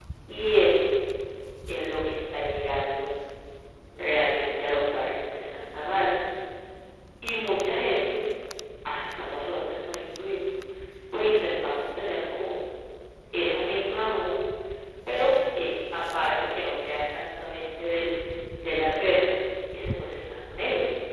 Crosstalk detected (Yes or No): No